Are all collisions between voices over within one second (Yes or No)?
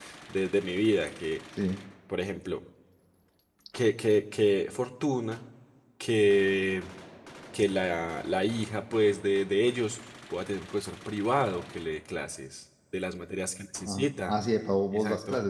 Yes